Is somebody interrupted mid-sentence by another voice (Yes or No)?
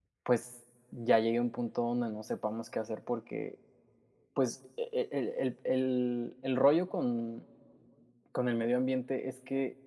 No